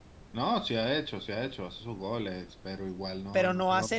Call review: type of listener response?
taking over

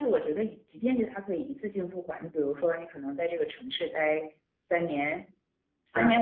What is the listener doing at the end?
listening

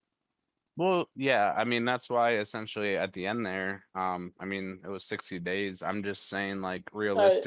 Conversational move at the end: taking over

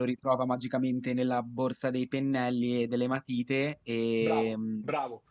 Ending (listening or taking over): taking over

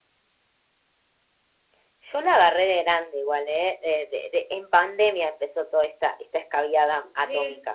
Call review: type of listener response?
taking over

